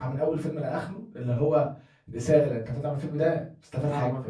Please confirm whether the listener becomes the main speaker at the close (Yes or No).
Yes